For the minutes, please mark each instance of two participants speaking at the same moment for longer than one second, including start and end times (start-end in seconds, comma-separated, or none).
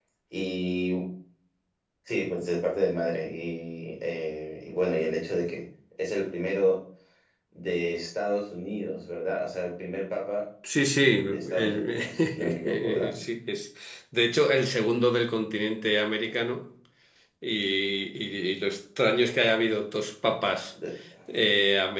11.2-13.1